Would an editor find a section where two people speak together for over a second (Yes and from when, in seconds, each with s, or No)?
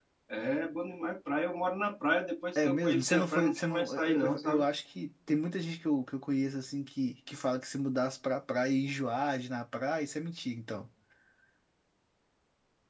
Yes, from 2.6 s